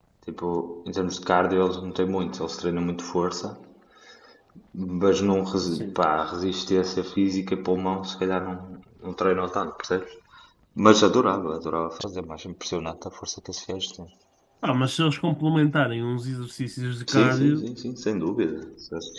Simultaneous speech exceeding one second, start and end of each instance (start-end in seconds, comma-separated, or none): none